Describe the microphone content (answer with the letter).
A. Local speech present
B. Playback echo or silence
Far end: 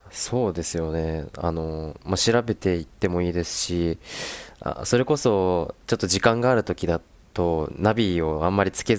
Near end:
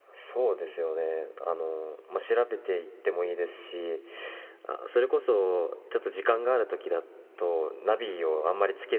B